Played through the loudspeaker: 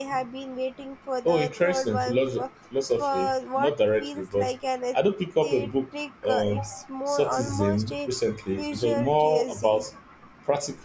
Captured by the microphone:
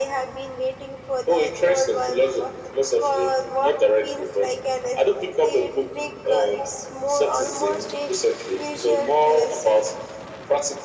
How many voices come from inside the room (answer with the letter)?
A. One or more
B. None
B